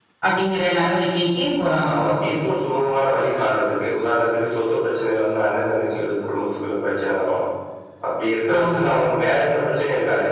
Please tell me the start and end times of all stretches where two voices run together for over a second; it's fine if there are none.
none

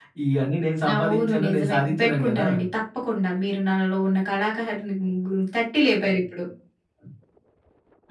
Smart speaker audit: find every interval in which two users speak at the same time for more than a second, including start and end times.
1.0-2.5

